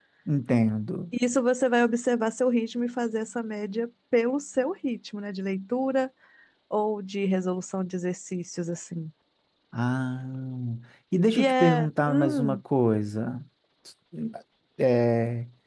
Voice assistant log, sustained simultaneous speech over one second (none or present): present